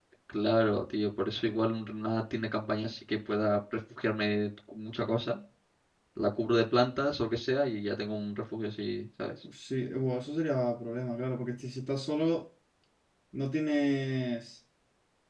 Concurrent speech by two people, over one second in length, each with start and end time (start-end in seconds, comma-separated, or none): none